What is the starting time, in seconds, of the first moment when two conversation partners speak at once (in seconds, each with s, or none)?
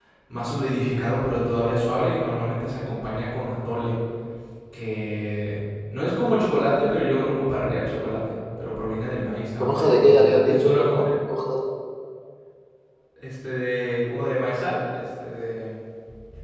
9.6 s